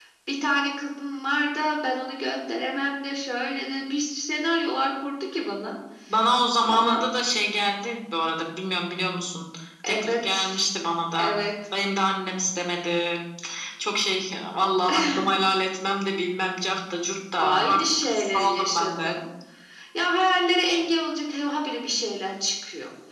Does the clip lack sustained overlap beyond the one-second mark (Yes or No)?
No